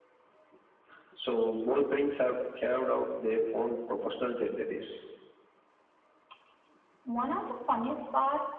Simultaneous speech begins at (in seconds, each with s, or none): none